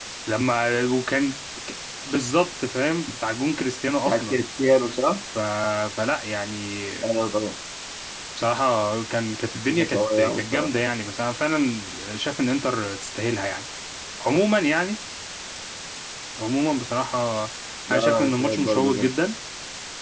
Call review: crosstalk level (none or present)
present